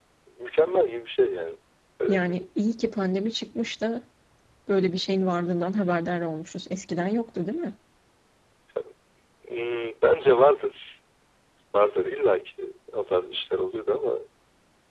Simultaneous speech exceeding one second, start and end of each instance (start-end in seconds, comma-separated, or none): none